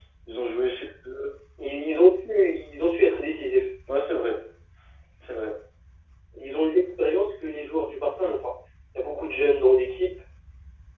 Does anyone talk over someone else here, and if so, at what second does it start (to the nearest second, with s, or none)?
none